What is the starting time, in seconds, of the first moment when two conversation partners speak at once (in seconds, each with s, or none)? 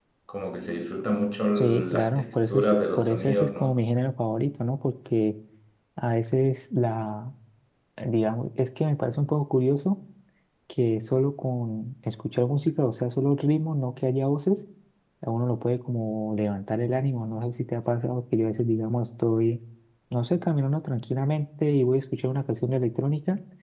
1.6 s